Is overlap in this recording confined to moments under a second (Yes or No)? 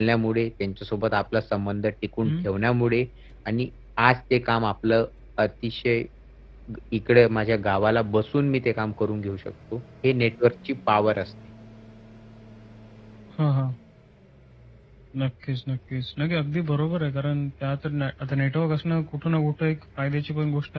Yes